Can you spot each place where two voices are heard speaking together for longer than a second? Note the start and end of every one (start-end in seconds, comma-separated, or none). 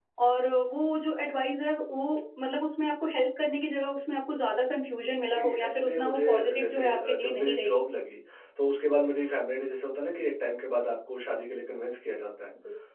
5.1-7.7